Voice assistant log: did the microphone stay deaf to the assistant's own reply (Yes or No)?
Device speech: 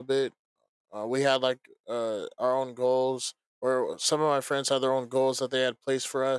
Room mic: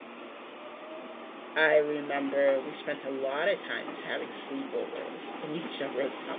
Yes